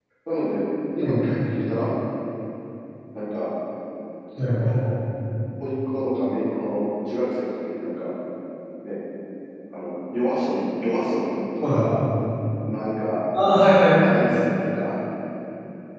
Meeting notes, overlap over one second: none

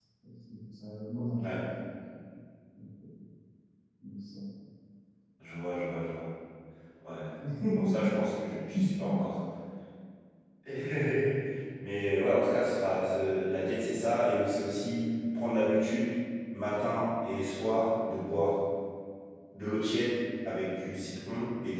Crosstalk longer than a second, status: none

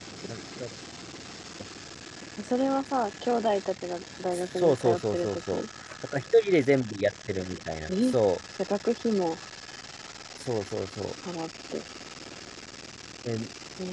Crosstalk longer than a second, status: present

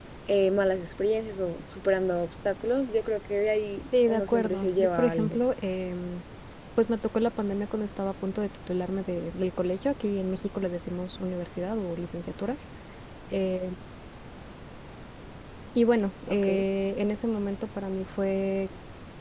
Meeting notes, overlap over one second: present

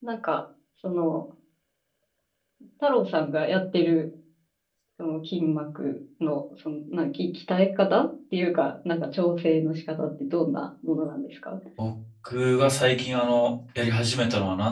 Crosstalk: none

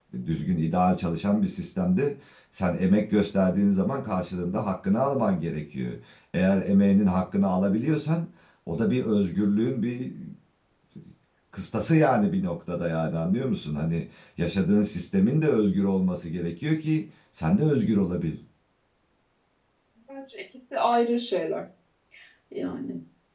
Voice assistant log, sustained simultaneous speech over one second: none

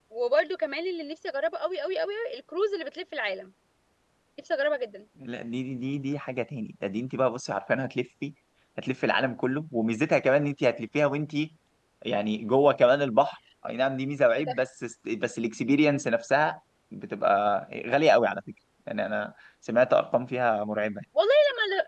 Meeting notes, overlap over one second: none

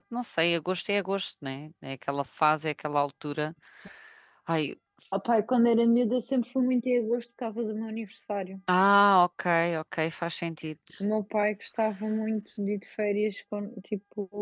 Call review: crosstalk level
none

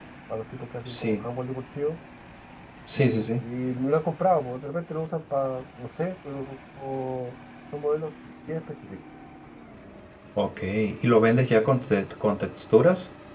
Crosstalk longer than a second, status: none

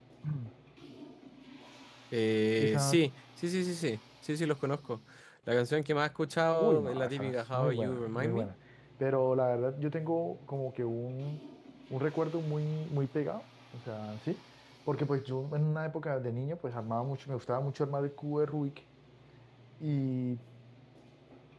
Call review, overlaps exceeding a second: present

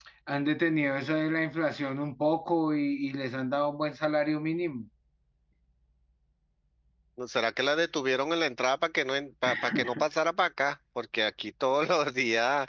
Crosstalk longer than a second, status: none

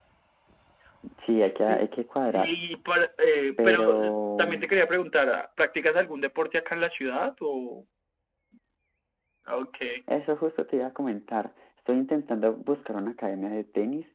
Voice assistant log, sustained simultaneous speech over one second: none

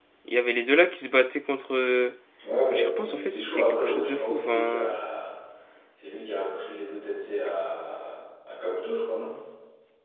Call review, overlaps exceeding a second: present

